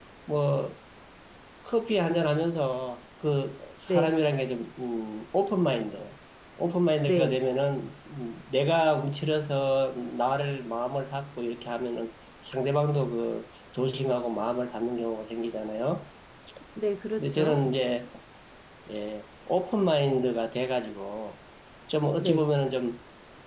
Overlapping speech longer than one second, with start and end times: none

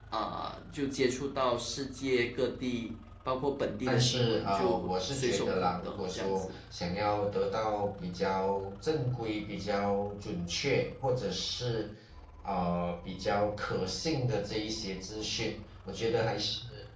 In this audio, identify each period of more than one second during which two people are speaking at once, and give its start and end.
3.9-6.6

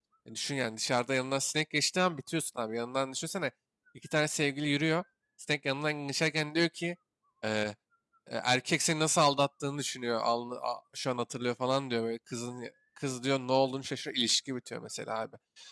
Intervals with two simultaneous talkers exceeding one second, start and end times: none

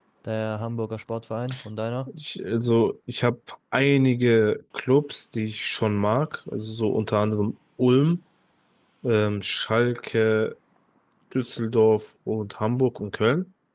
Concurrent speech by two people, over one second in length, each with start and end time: none

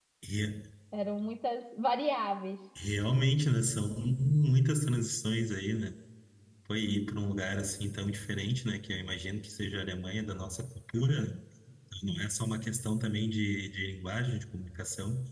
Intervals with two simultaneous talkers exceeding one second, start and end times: none

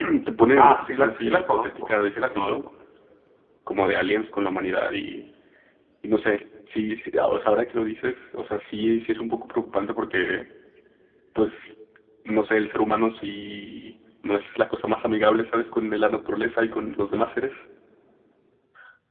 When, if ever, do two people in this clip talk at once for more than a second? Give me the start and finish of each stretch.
0.6-2.5

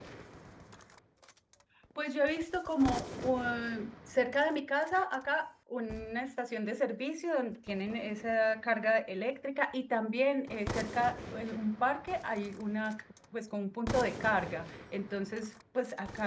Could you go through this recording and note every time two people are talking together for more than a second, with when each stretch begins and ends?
none

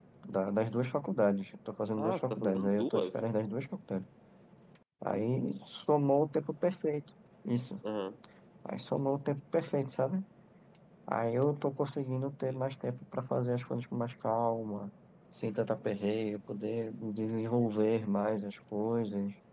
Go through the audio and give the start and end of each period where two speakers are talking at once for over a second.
2.0-3.2

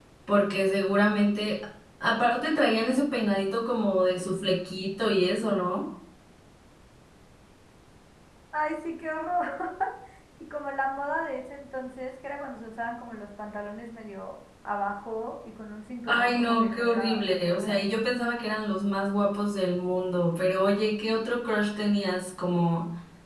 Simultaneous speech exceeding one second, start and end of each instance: 16.0-17.8

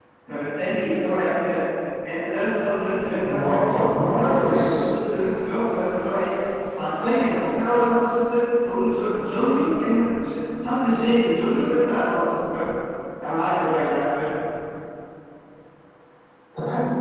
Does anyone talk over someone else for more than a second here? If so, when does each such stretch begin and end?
3.4-4.6

